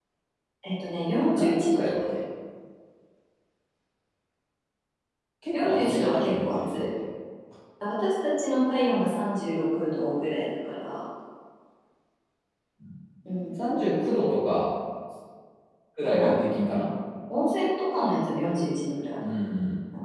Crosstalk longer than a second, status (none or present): present